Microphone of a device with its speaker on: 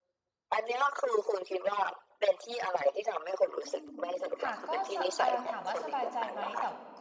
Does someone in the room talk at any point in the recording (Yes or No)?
Yes